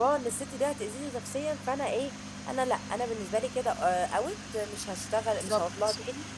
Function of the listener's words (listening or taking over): listening